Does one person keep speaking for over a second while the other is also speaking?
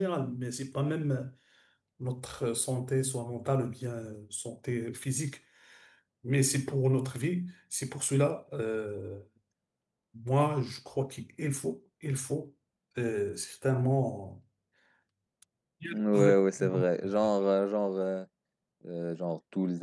No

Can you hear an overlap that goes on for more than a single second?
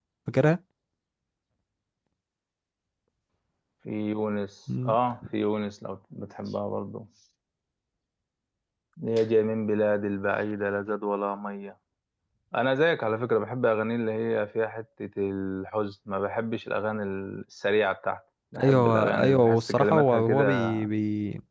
Yes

